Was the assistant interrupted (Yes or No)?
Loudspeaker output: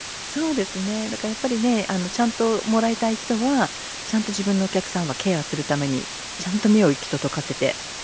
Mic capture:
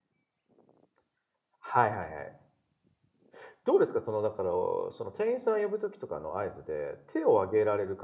Yes